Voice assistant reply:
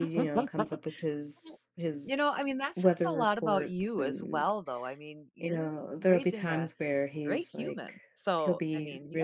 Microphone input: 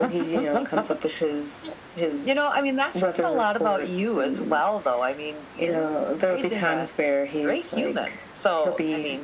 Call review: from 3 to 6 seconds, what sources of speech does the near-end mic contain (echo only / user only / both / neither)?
echo only